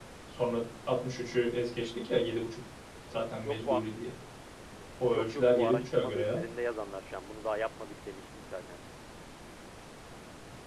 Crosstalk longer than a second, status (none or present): present